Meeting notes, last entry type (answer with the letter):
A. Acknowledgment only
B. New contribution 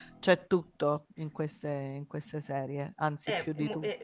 B